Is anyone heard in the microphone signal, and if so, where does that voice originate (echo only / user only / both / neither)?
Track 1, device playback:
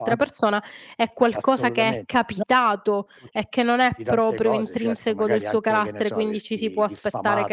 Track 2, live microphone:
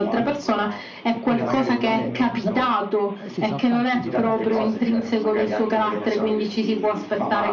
both